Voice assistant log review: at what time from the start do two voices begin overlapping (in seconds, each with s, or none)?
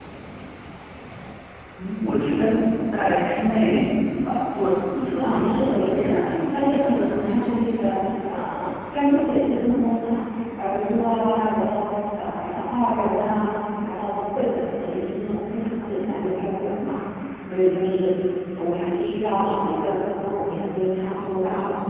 5.2 s